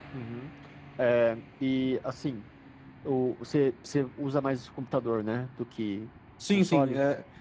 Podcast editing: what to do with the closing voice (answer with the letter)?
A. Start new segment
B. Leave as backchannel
A